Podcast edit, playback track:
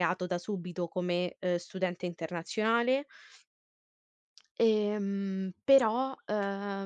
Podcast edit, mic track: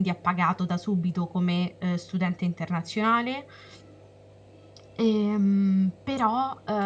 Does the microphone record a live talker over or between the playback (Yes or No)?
No